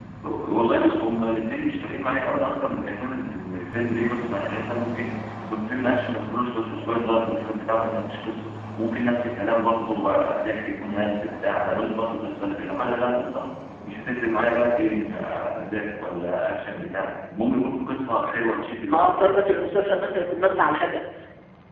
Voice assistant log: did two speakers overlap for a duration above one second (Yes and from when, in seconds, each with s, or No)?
No